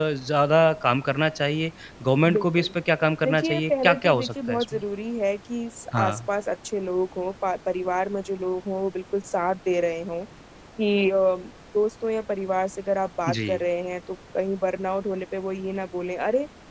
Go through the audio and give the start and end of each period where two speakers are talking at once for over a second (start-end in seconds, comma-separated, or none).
3.2-4.8